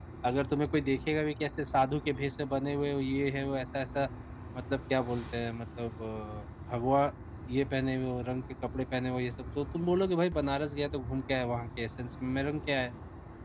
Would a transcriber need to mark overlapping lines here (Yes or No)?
No